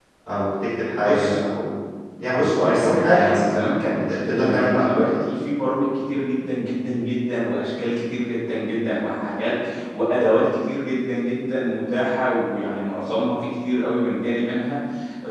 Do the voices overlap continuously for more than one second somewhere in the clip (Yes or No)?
Yes